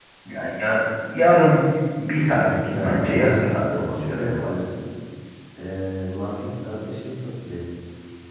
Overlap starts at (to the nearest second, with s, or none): 3 s